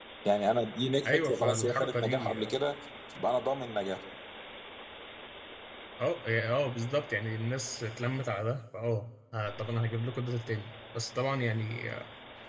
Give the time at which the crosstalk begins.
1.1 s

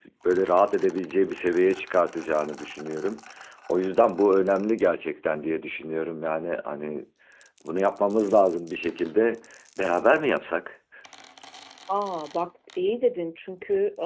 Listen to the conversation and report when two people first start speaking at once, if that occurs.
none

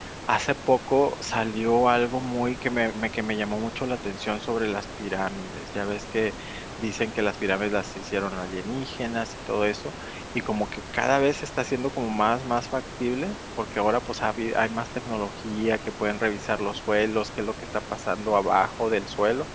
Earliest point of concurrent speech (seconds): none

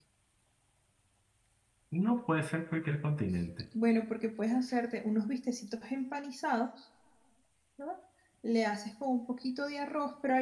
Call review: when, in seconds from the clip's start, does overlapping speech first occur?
none

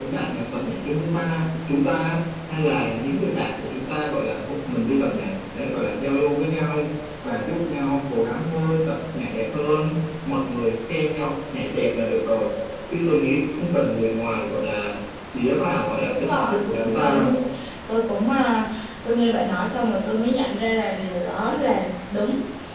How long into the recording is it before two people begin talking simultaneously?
16.0 s

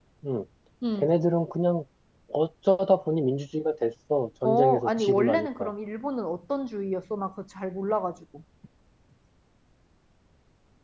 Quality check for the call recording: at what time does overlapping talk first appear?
4.4 s

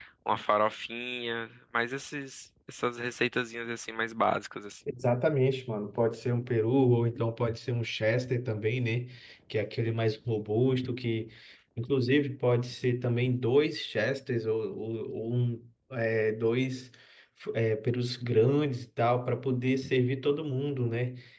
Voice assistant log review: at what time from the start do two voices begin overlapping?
none

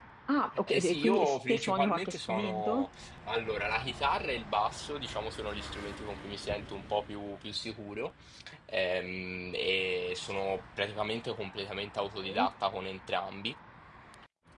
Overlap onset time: 0.7 s

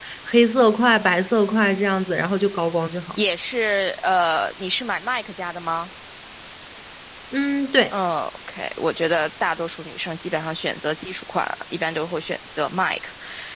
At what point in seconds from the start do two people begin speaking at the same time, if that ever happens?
none

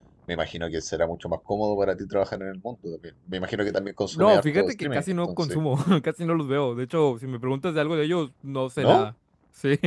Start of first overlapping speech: 4.0 s

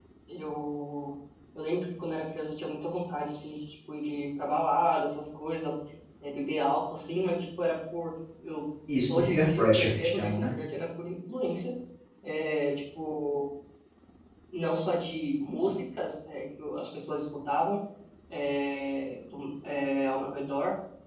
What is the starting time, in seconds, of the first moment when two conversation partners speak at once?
9.1 s

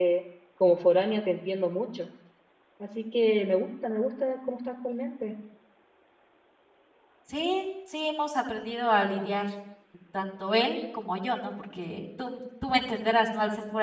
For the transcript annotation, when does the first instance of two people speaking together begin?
none

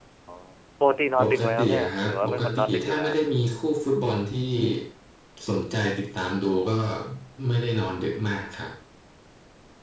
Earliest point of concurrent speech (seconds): 1.2 s

